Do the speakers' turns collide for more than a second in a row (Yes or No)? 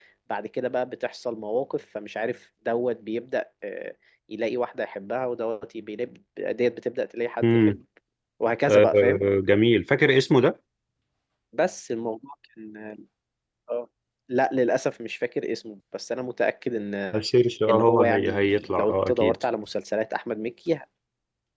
Yes